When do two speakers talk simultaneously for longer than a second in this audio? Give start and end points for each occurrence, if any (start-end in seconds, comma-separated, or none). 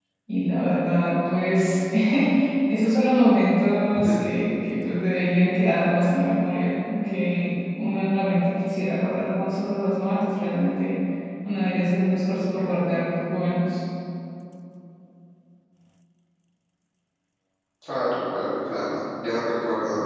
none